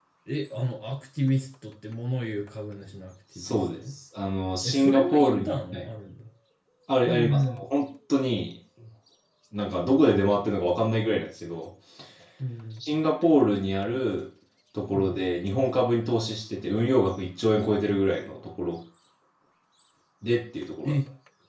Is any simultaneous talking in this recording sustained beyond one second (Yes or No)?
Yes